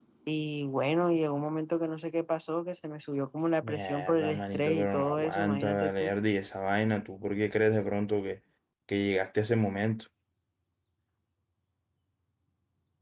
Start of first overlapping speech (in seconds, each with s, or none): 3.6 s